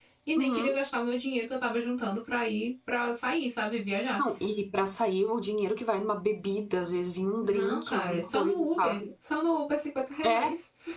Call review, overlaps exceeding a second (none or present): present